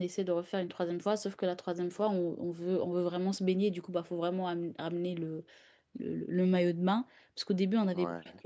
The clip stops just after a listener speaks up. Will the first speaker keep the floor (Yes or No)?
Yes